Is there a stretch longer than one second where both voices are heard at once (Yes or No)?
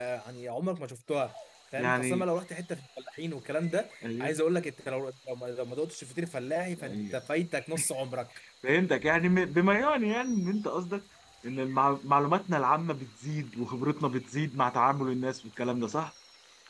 No